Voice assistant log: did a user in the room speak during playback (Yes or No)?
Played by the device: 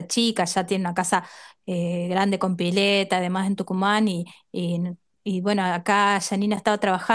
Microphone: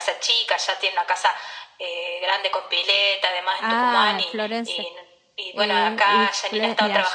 Yes